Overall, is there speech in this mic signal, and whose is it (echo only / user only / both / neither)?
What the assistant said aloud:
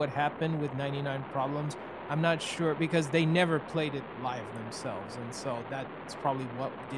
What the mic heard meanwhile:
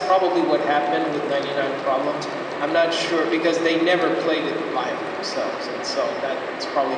echo only